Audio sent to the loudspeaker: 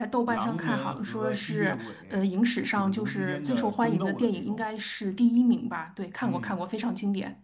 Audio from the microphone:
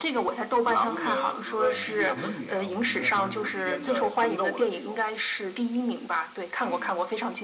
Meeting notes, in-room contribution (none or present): present